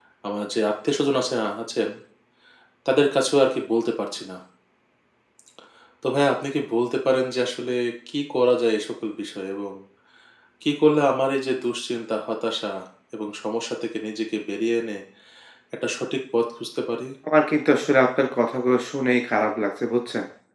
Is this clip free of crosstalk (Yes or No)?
Yes